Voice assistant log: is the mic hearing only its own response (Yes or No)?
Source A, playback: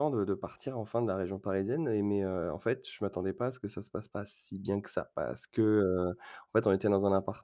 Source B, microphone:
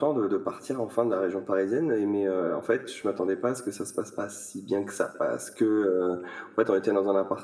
Yes